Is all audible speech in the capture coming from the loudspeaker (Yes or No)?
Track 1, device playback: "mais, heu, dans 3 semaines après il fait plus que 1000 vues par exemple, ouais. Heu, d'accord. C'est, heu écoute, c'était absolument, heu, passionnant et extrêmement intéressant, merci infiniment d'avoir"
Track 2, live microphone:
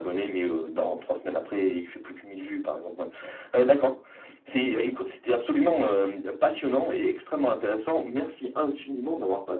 Yes